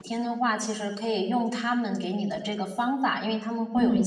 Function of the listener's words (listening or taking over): listening